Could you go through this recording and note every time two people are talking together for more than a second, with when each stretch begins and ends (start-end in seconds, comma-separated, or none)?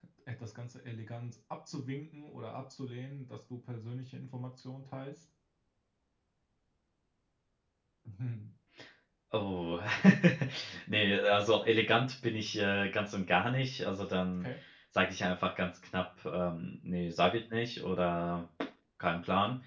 none